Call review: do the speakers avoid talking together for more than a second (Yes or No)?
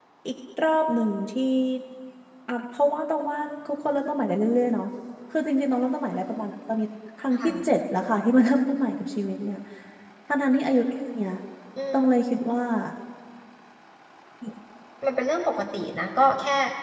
Yes